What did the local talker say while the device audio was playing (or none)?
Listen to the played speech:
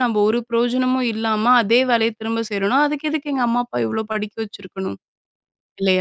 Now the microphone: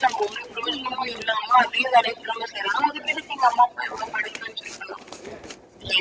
none